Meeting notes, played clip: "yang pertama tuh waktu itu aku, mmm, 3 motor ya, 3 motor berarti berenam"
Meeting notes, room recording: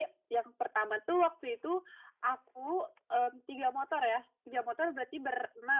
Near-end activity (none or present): none